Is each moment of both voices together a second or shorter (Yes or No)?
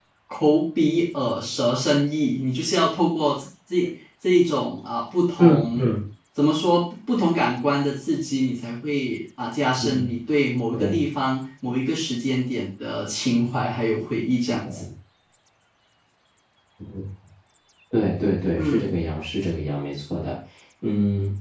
Yes